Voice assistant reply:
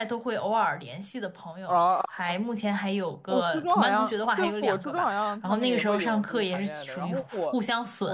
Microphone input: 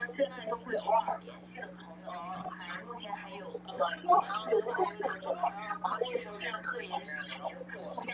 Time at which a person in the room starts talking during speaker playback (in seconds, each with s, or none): none